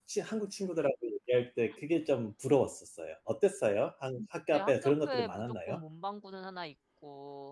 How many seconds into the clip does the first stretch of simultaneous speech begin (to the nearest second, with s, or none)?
5 s